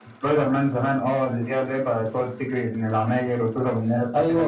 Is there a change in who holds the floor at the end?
Yes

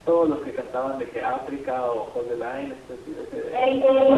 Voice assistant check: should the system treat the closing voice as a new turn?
Yes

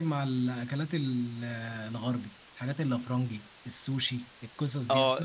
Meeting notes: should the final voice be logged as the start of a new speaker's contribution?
Yes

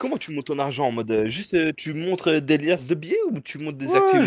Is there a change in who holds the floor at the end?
Yes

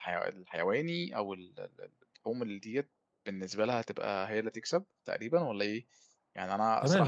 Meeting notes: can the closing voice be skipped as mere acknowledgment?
No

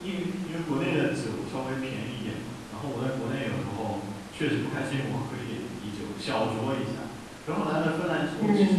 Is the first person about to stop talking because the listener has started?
No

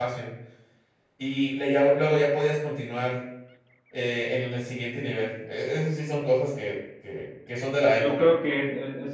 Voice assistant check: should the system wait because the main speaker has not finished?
No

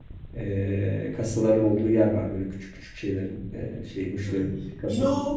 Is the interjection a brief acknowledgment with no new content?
No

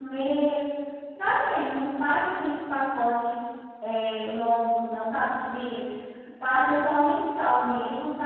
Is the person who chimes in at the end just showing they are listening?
Yes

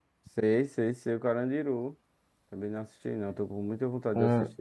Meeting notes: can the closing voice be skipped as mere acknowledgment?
No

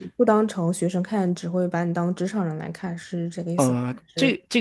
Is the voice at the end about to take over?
Yes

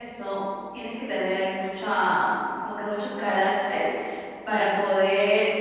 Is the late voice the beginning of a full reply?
No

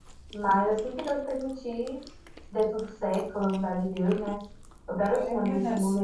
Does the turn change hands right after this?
Yes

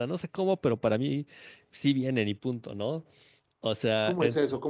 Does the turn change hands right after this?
Yes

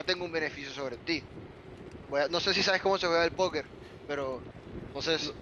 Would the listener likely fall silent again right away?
No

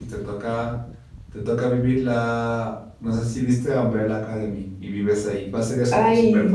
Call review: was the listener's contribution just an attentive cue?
No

